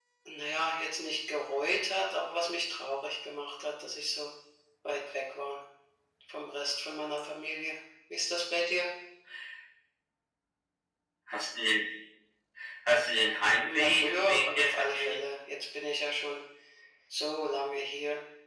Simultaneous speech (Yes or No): Yes